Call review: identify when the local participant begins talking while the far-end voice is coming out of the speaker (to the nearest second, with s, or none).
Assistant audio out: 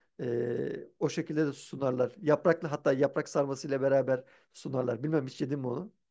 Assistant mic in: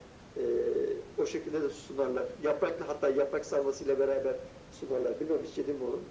none